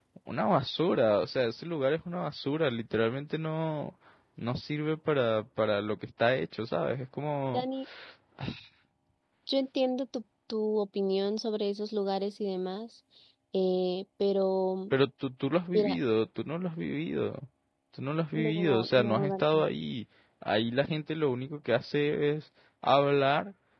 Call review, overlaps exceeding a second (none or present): present